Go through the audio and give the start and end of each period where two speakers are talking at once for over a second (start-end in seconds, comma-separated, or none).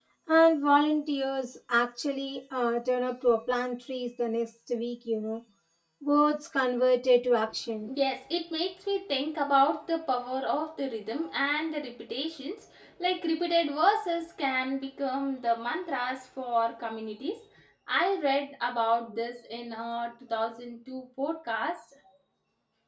none